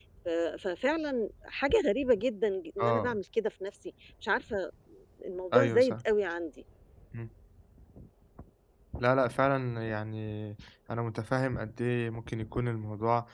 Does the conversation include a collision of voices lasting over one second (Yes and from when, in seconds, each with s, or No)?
No